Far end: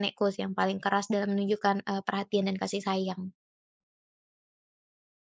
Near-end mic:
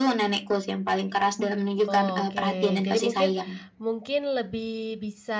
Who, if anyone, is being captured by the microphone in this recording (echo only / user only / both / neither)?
both